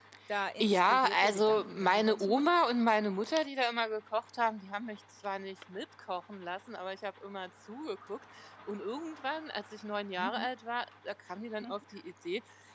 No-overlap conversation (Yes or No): No